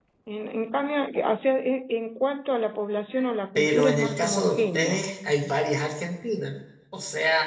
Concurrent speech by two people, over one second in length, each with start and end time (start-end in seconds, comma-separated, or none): 3.6-5.0